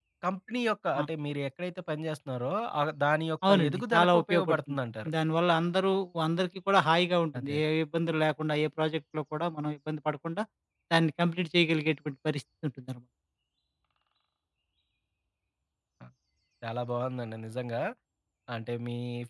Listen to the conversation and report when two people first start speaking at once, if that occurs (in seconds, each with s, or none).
3.4 s